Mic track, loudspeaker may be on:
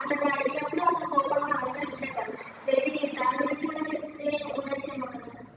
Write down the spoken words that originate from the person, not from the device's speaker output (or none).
none